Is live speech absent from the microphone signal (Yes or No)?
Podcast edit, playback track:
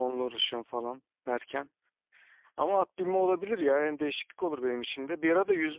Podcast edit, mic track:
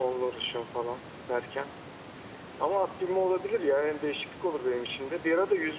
Yes